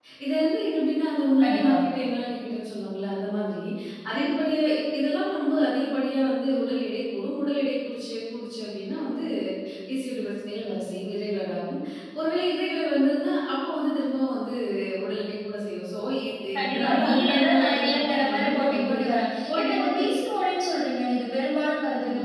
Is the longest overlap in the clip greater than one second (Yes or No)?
Yes